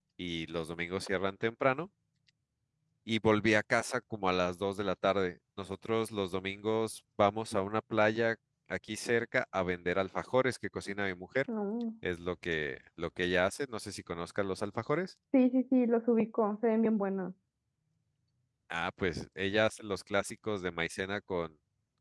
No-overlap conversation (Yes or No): Yes